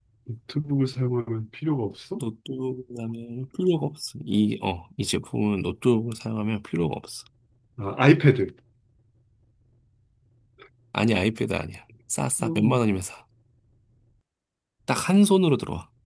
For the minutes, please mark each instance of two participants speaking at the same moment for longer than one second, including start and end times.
none

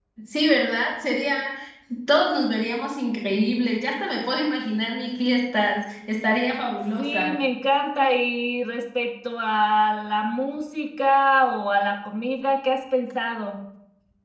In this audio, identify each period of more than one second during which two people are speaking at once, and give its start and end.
none

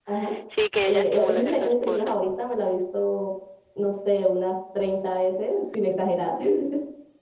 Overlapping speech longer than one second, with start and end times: 0.8-2.1

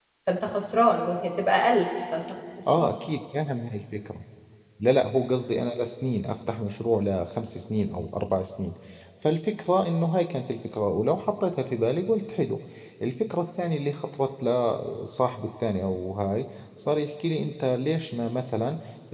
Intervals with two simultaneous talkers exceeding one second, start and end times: none

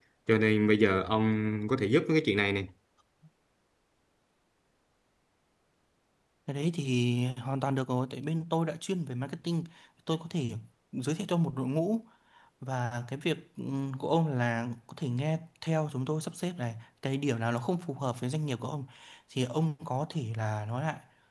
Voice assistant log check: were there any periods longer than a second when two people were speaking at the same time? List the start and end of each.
none

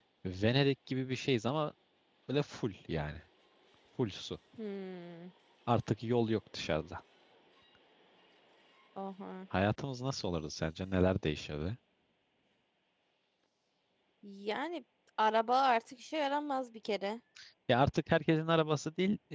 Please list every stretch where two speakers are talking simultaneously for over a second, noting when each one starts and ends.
none

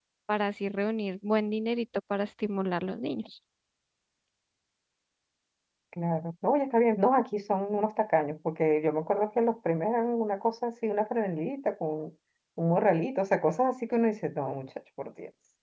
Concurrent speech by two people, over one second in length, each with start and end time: none

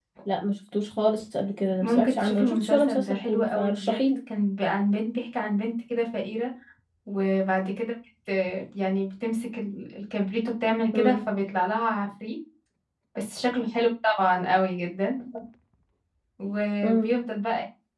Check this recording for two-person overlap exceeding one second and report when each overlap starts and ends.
1.8-4.0

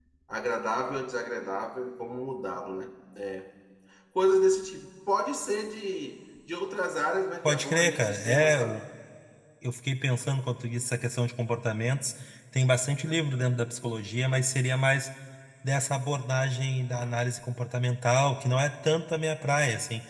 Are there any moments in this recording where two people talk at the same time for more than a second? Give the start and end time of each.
7.4-8.8

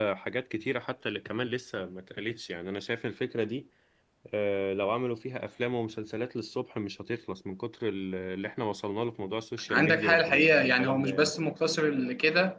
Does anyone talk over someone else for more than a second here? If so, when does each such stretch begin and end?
9.7-11.3

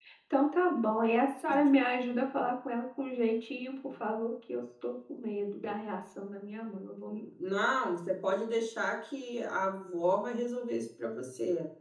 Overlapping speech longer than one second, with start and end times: none

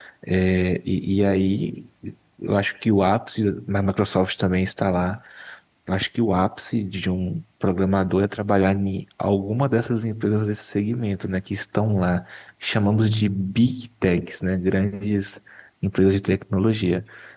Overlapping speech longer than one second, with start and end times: none

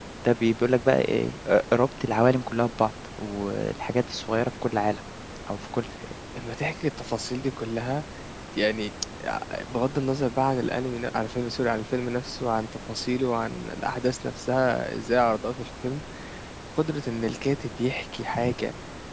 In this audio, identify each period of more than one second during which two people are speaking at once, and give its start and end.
none

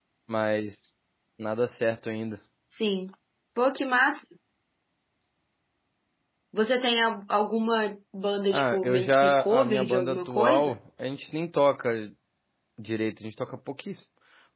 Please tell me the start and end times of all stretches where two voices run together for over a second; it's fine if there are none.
8.5-10.7

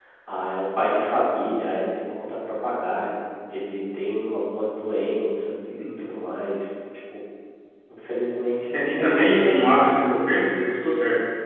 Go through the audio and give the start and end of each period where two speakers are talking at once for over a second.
8.7-10.0

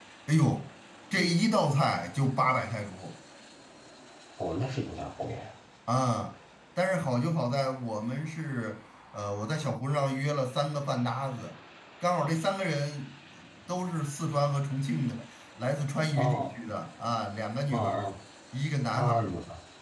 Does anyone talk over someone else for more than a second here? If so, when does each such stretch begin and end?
none

